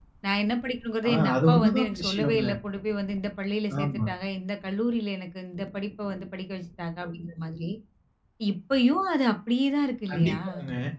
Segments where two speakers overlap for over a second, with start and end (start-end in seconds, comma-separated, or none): 1.1-2.4